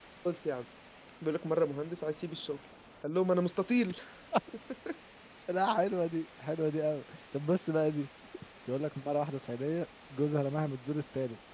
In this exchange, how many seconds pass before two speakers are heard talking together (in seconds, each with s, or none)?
none